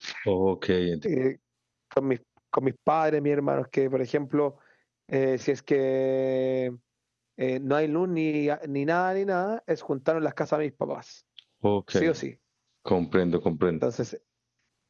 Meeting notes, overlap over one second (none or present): none